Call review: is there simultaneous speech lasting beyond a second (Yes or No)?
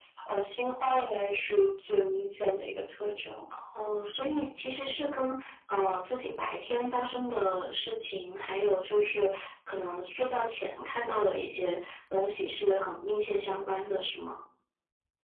No